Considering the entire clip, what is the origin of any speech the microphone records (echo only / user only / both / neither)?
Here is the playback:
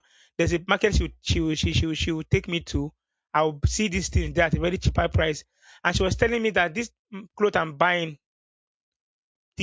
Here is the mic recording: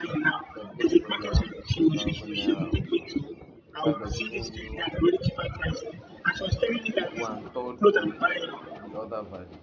both